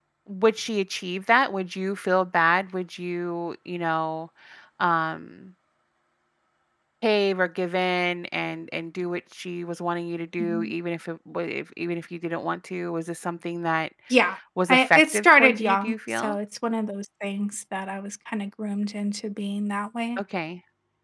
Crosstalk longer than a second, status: present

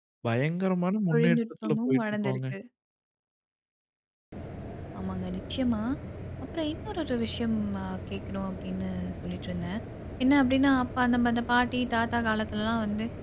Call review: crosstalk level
present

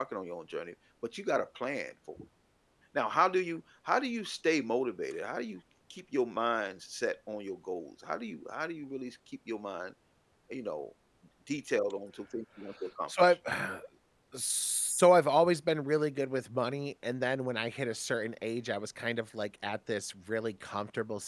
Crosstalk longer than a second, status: none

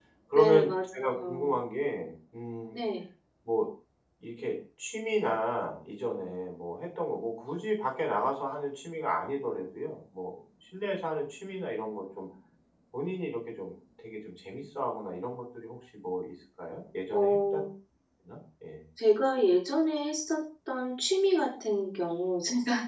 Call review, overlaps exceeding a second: present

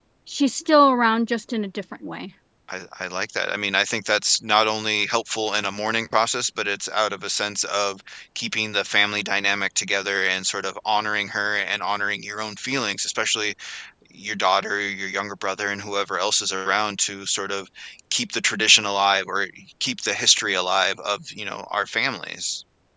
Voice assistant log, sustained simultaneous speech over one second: none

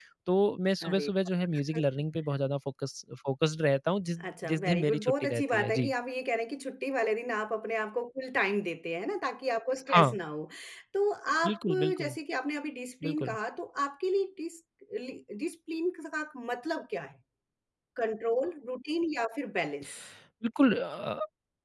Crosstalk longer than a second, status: present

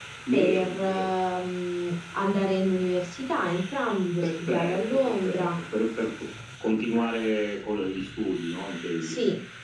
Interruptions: present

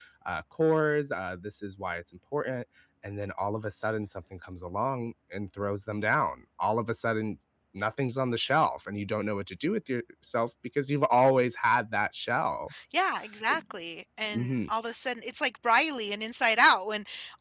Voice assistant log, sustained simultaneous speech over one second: none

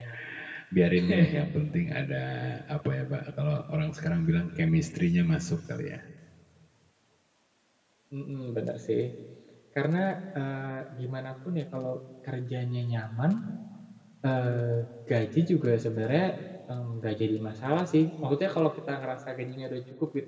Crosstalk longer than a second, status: none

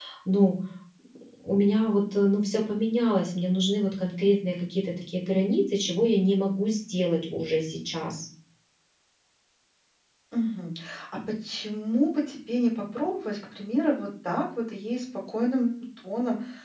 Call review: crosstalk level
none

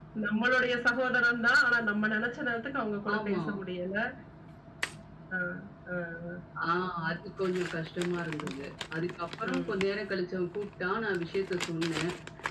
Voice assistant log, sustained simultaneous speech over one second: none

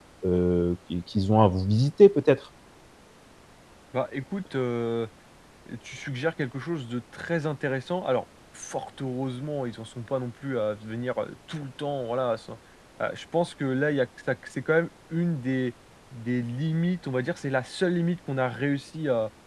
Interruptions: none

